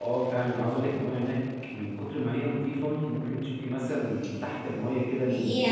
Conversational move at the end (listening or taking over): taking over